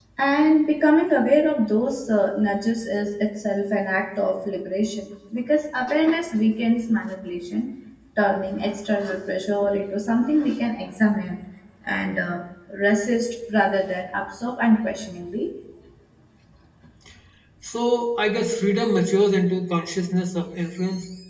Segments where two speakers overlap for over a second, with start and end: none

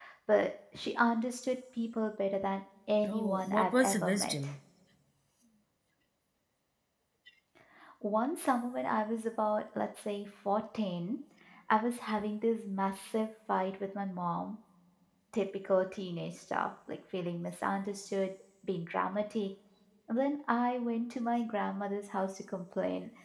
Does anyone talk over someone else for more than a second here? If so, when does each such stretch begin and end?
3.0-4.5

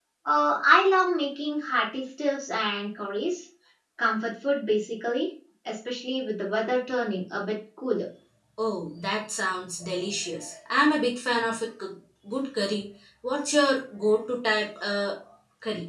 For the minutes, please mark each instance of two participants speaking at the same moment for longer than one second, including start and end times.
none

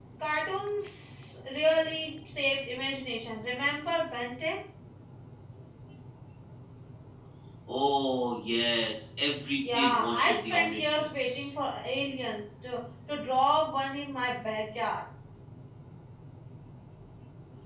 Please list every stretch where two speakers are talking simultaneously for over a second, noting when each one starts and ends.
9.7-11.5

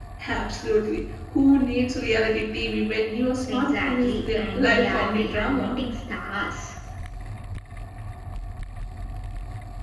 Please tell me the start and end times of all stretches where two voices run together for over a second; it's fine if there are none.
3.5-5.7

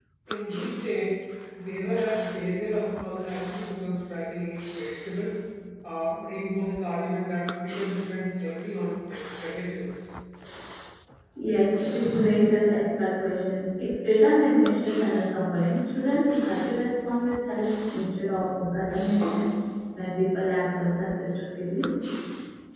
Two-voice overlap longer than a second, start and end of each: none

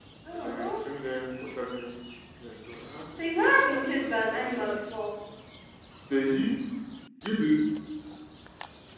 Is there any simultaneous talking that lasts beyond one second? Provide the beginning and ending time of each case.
3.2-4.6

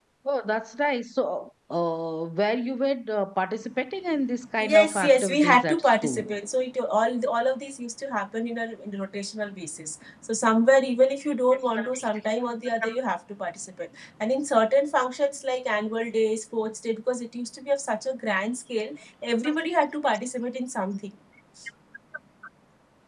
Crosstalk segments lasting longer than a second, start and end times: 4.6-6.2

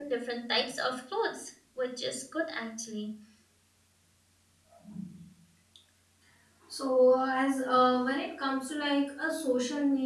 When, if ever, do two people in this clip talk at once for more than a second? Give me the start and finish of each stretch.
none

